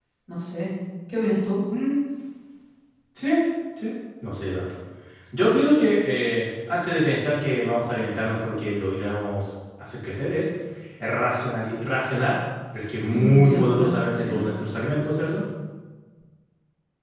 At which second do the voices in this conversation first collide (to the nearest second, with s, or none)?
13 s